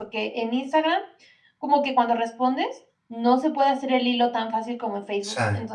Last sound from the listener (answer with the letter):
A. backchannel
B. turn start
A